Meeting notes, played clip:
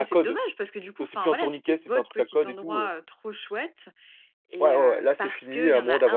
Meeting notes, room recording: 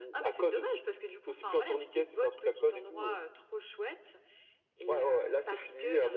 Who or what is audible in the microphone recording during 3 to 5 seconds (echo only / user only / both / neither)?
echo only